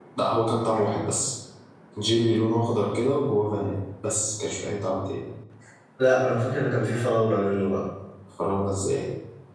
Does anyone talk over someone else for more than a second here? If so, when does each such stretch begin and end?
none

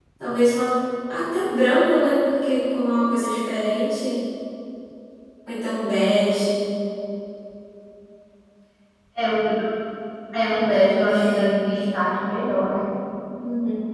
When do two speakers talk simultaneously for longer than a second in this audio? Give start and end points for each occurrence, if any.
none

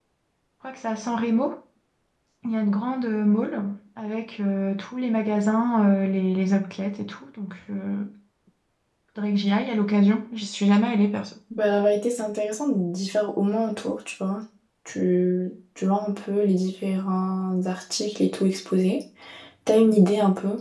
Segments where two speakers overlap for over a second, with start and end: none

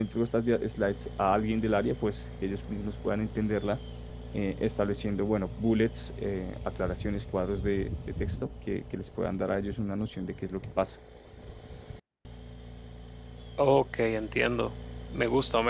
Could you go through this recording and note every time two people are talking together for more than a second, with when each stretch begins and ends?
none

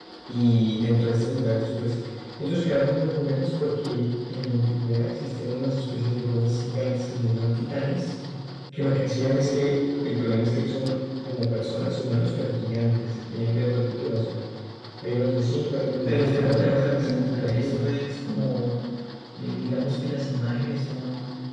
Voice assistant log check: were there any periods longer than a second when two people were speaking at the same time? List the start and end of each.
16.1-17.8

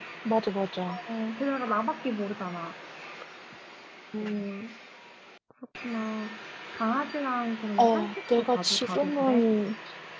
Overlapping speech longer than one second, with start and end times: 7.8-9.5

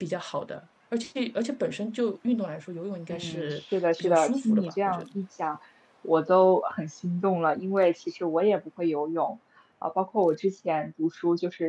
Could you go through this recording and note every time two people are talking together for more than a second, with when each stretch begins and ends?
3.1-5.0

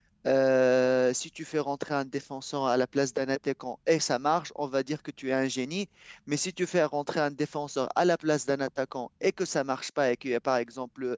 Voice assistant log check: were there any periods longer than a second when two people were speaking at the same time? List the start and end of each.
none

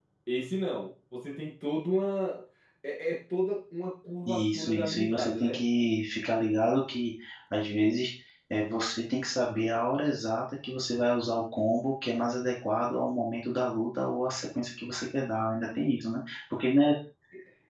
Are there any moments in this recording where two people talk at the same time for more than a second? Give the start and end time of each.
4.3-5.6

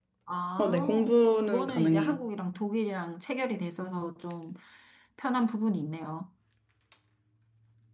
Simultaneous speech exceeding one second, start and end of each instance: 0.6-2.2

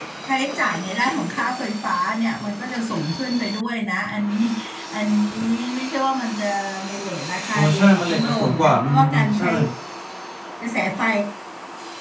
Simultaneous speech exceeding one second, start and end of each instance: 7.5-9.5

